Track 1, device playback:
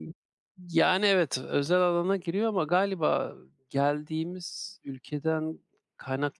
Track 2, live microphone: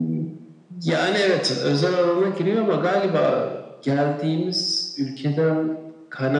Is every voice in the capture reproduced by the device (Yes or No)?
Yes